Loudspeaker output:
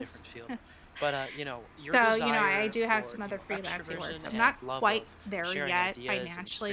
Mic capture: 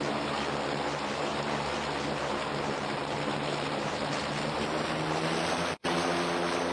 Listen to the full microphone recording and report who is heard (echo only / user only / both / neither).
neither